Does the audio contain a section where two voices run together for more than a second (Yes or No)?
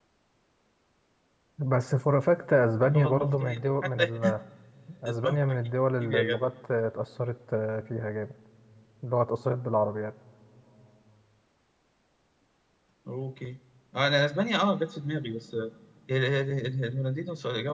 Yes